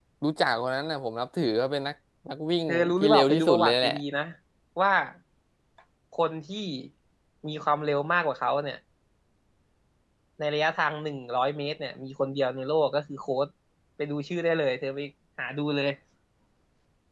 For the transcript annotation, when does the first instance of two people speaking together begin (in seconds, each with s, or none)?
2.7 s